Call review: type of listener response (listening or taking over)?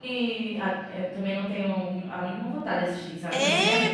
taking over